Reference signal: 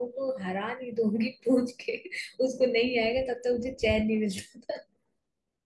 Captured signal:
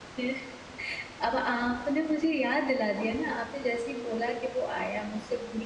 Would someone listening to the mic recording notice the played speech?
No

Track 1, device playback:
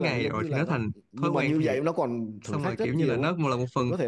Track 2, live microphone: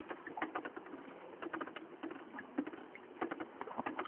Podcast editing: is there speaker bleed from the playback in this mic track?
No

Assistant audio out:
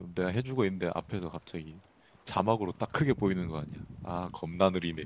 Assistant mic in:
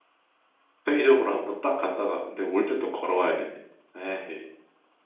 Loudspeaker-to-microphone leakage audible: No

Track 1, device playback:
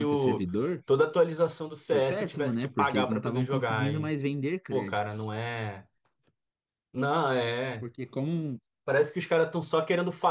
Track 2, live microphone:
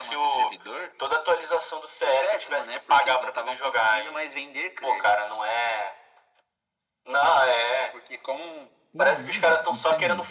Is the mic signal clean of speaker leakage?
No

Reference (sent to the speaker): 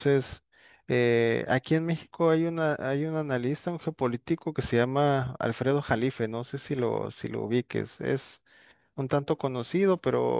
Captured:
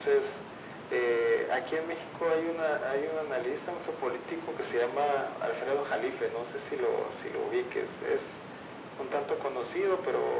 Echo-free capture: No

